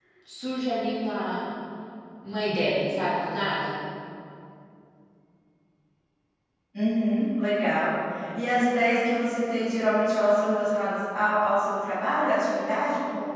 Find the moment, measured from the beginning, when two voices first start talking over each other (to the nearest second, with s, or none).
none